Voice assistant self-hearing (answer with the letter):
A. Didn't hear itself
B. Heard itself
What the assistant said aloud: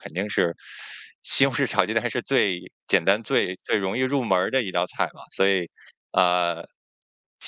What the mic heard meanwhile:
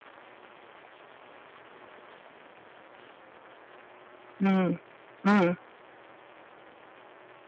A